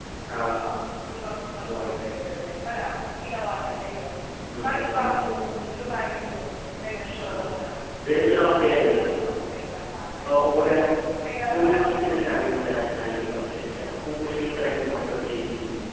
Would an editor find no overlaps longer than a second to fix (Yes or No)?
No